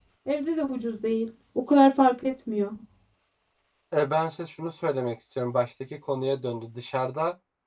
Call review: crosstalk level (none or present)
none